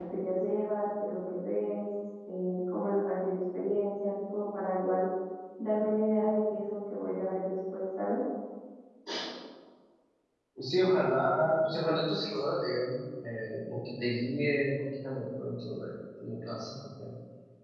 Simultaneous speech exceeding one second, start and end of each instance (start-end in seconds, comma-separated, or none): none